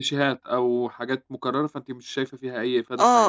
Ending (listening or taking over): taking over